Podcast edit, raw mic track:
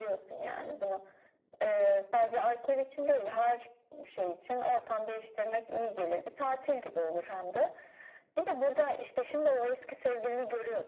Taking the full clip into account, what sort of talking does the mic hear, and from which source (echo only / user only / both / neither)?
echo only